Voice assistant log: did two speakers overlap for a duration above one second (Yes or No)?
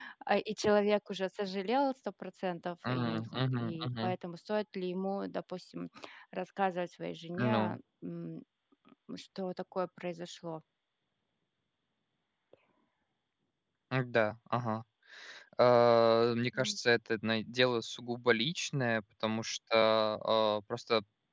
Yes